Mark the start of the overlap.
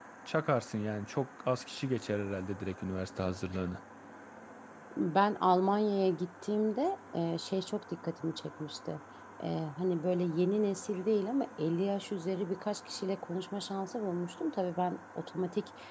none

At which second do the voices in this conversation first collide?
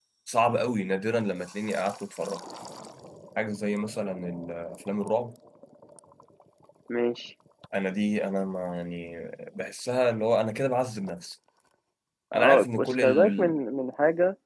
12 s

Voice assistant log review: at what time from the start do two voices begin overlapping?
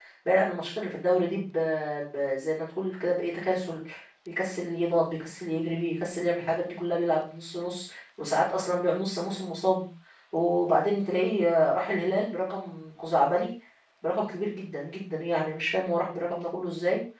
none

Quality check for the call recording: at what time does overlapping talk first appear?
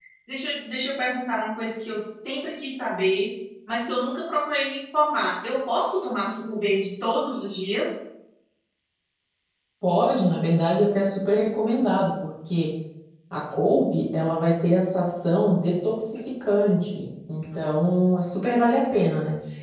none

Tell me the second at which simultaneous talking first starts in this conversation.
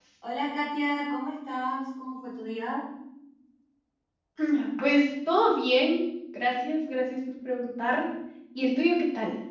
none

